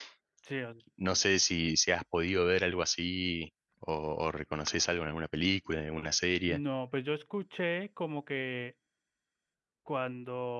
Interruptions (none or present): none